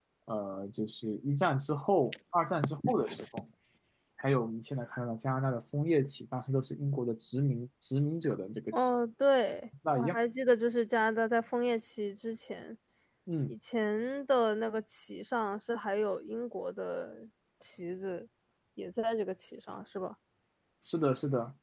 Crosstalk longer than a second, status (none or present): none